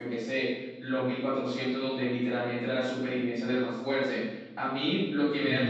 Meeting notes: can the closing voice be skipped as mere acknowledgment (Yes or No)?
Yes